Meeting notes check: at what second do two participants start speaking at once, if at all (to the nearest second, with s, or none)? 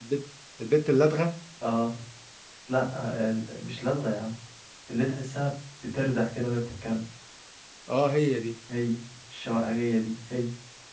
none